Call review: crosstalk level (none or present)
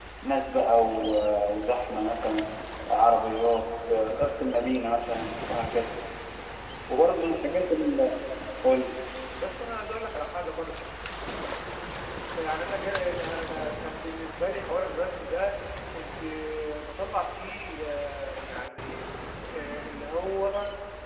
none